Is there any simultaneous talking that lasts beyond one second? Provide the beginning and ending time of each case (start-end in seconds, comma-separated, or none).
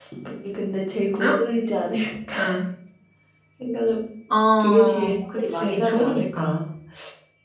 4.6-6.6